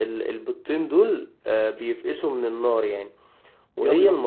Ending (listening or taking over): listening